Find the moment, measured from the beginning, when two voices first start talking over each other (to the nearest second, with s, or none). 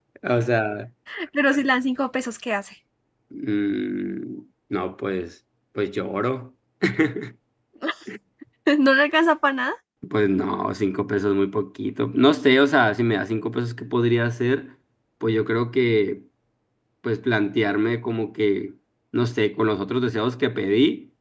none